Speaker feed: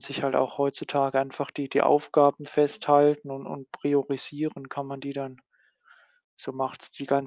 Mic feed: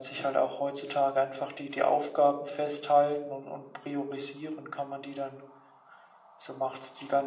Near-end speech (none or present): none